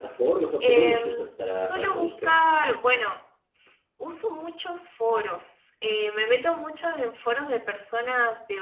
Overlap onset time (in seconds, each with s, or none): 0.6 s